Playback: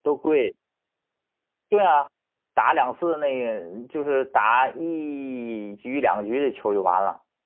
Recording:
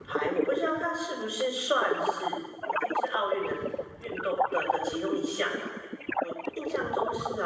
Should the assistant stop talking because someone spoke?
Yes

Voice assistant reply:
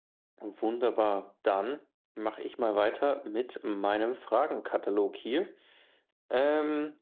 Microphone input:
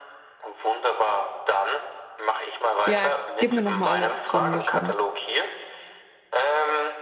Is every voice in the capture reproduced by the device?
No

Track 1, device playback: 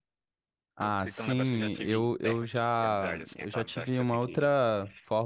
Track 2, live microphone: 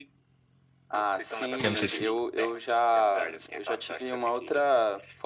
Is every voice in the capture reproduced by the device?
No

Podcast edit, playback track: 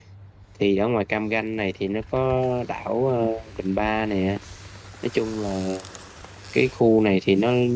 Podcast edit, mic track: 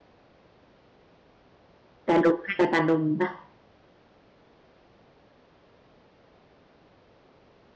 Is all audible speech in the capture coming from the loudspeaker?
No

